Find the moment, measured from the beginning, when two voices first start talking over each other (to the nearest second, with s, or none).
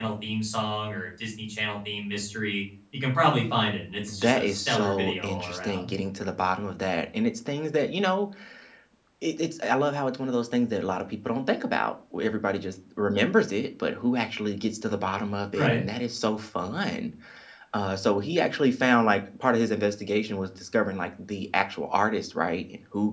4 s